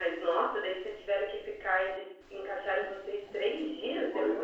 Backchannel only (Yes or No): No